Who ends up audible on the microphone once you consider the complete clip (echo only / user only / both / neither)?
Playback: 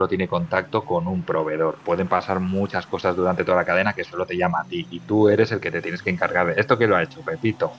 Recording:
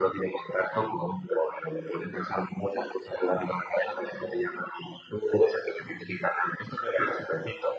echo only